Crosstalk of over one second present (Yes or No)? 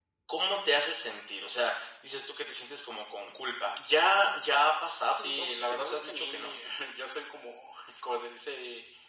Yes